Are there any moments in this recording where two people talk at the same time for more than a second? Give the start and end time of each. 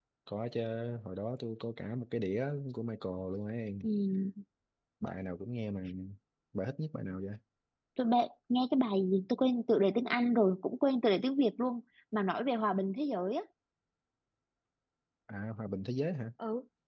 none

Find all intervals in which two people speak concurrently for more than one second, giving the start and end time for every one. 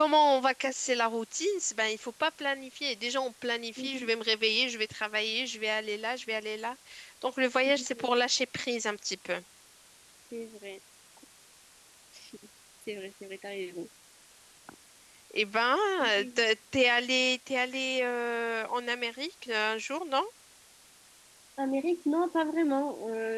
none

